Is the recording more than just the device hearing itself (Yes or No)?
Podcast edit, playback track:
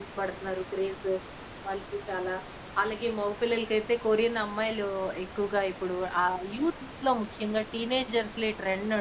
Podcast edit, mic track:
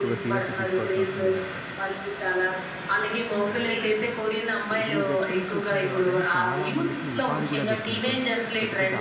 Yes